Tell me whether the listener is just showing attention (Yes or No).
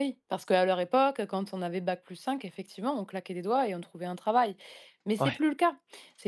Yes